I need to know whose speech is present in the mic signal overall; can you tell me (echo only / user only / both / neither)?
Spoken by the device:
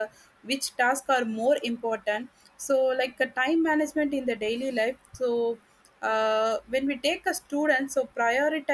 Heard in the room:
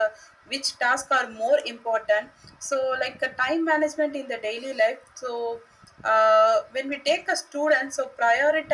echo only